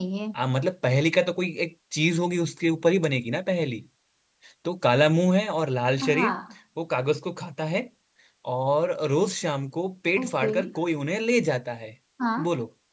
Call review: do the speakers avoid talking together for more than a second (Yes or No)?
Yes